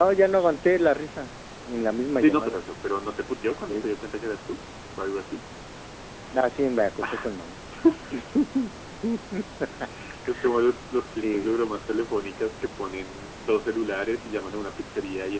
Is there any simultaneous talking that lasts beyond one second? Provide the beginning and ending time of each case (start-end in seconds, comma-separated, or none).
none